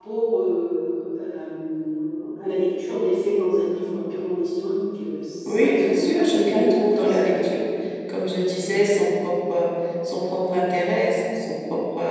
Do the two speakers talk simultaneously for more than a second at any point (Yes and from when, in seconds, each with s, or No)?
Yes, from 5.4 s